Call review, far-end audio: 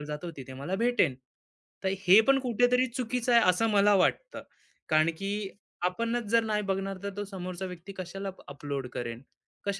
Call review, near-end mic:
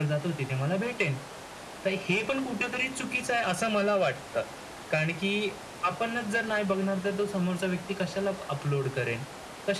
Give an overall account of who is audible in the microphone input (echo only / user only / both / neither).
echo only